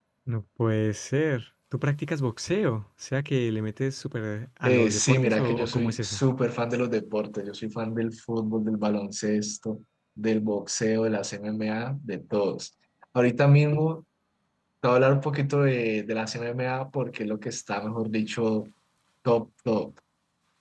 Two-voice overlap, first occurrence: 4.6 s

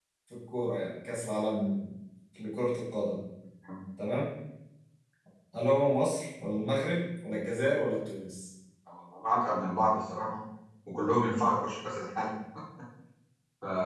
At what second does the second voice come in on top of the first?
none

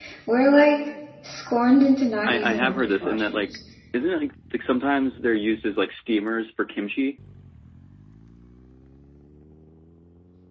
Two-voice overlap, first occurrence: 2.3 s

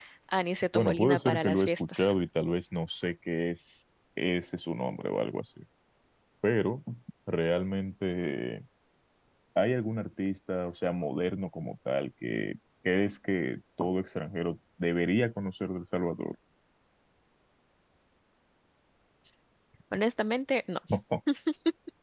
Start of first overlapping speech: 0.7 s

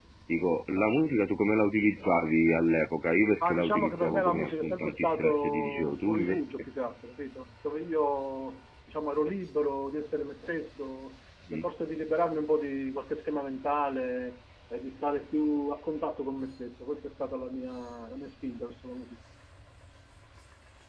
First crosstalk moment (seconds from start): 3.4 s

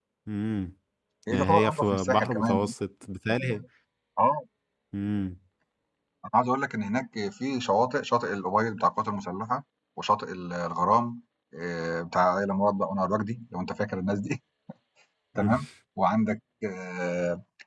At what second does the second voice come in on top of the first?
1.3 s

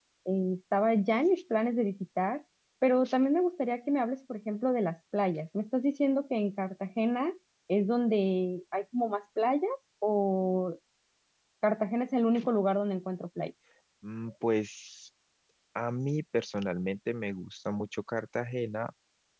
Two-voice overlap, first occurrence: none

